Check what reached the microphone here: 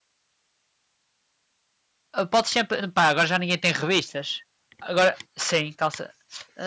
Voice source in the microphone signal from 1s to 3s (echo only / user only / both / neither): user only